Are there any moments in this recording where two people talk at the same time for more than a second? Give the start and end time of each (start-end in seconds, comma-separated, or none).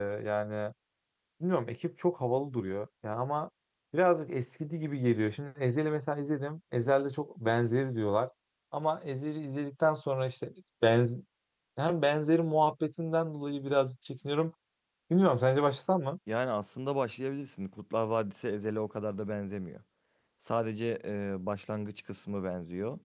none